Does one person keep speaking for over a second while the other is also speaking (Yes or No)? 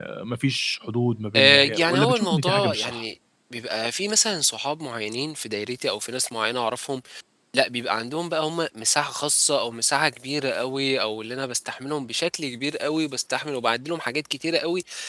Yes